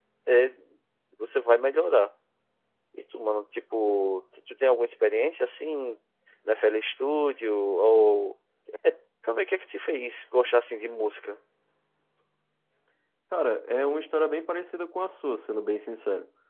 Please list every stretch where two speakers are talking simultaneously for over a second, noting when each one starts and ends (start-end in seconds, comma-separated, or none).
none